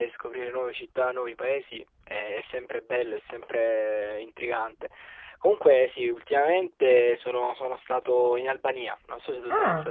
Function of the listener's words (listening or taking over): taking over